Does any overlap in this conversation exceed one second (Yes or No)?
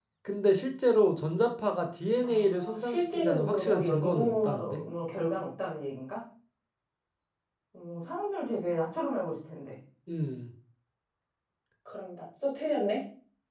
Yes